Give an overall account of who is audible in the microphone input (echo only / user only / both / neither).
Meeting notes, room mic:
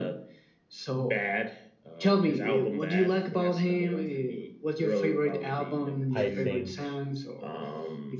both